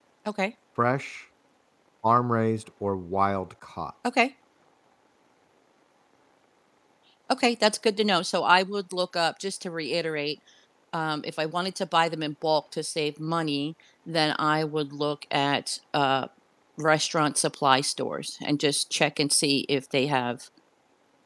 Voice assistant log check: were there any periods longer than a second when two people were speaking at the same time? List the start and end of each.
none

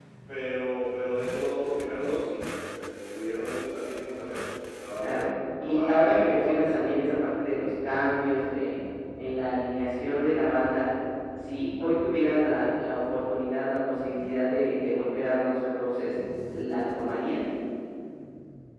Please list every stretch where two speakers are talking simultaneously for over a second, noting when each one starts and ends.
5.6-6.8

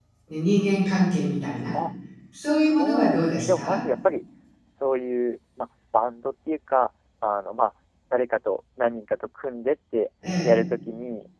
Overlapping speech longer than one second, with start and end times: 2.5-3.8

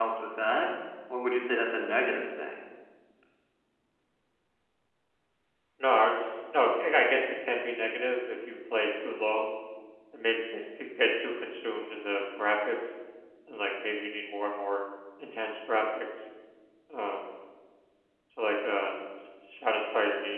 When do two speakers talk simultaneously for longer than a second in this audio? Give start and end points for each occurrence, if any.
none

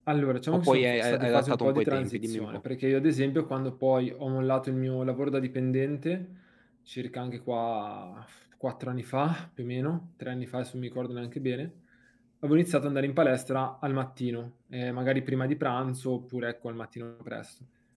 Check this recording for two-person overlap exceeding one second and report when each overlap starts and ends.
0.7-2.6

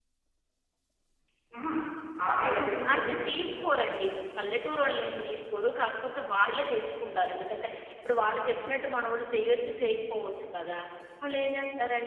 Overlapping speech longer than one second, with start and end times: 2.4-3.8

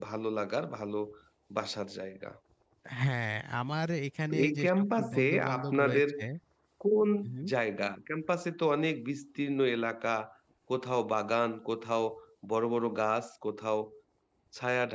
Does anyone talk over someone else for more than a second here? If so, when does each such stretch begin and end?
4.3-6.0

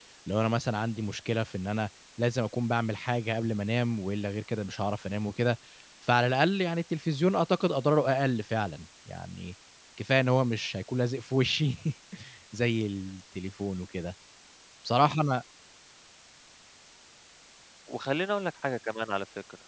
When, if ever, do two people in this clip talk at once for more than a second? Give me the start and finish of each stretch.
none

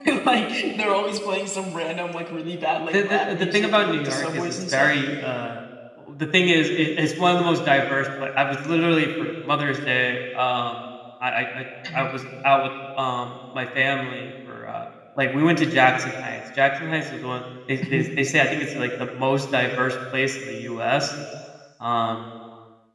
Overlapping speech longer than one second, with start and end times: 2.9-4.9

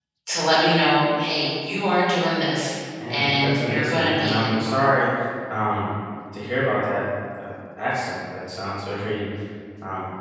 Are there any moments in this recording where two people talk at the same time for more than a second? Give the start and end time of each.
3.1-4.5

